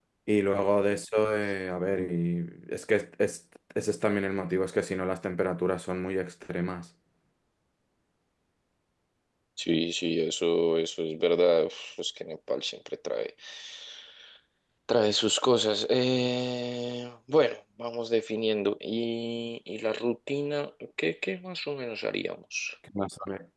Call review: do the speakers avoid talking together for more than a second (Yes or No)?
Yes